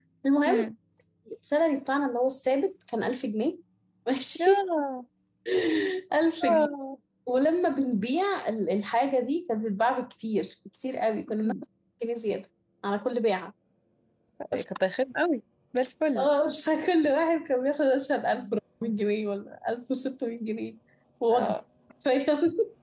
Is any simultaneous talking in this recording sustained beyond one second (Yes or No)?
No